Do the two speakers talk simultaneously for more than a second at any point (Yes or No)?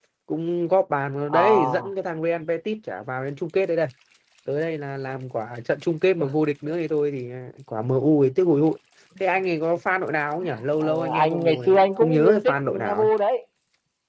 Yes